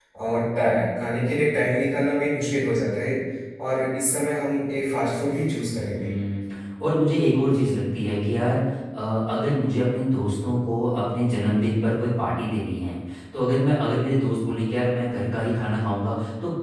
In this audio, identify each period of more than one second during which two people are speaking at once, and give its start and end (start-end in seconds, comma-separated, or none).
none